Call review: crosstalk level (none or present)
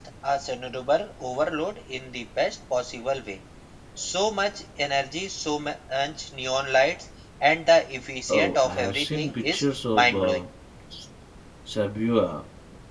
present